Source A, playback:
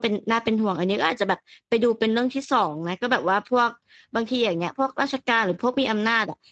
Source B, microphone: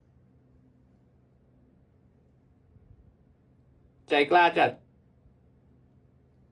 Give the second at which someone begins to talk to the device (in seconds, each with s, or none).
4.1 s